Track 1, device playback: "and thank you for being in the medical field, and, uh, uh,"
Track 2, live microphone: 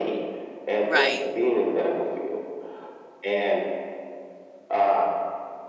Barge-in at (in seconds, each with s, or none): 0.8 s